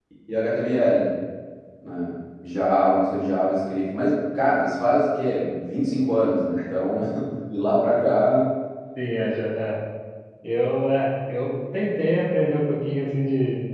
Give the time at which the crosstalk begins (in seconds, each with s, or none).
none